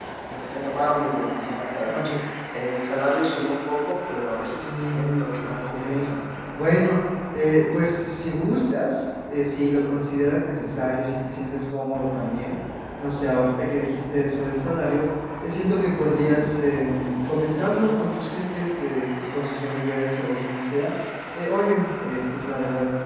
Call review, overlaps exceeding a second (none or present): present